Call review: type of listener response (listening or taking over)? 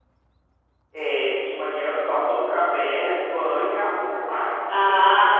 taking over